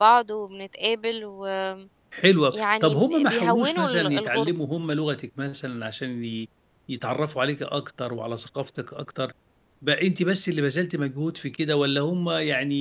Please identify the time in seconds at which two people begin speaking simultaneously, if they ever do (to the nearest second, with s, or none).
3 s